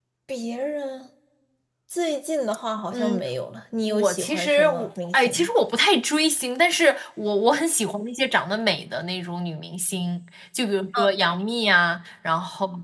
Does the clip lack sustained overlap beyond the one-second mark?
No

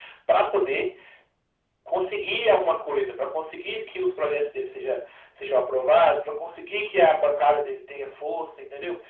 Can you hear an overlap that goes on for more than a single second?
No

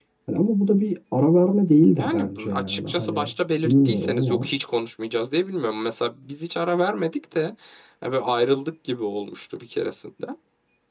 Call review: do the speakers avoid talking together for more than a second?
No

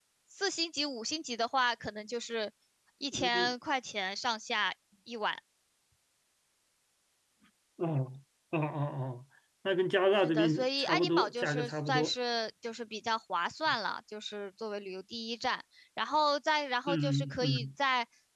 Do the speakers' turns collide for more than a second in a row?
Yes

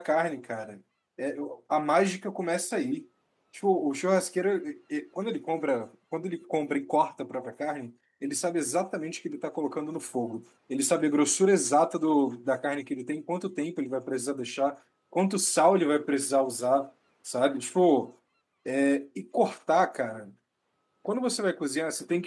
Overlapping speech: No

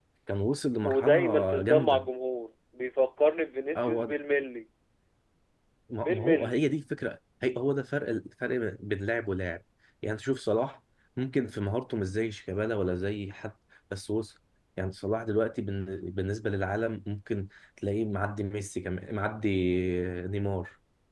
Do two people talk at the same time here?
Yes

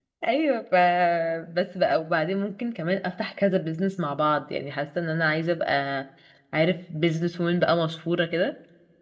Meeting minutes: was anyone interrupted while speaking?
No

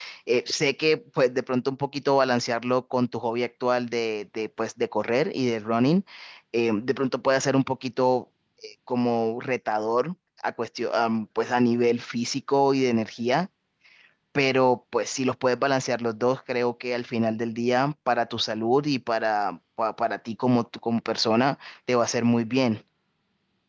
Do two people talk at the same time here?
No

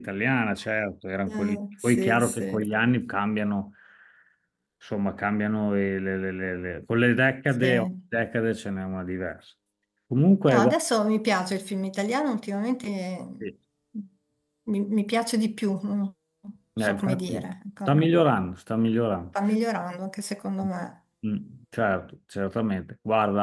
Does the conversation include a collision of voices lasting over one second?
Yes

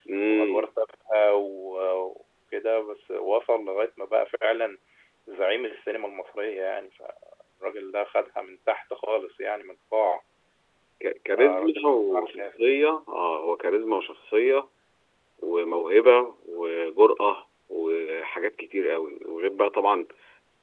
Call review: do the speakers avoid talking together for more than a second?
No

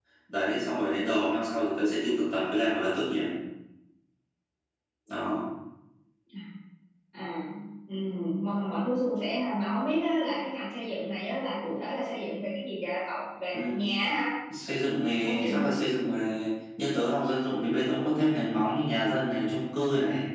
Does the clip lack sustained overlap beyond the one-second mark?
Yes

